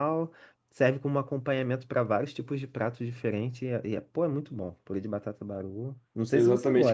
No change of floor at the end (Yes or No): No